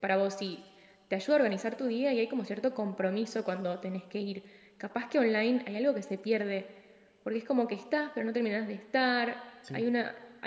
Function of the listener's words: listening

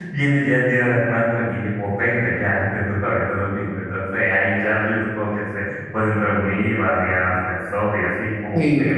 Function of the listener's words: listening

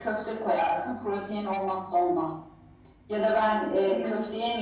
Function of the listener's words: listening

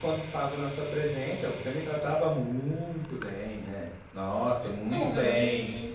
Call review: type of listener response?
taking over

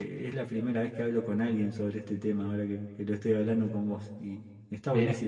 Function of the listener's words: listening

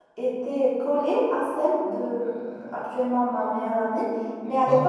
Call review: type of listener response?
listening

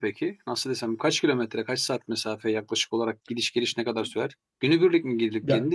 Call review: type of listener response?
listening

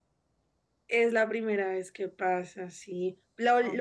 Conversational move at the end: listening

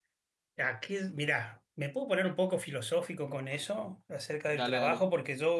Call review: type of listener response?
listening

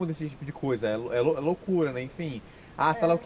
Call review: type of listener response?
listening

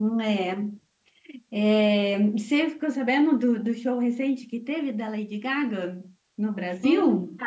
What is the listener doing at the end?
taking over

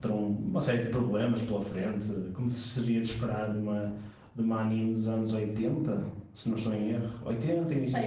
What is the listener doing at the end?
taking over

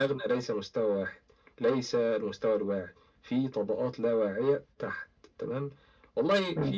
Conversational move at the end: listening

